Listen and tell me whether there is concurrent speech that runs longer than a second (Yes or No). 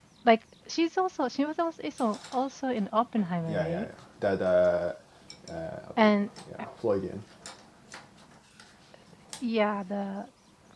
No